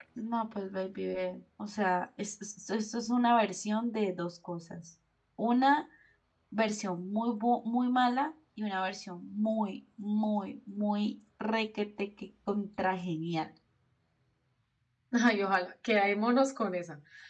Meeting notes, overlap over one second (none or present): none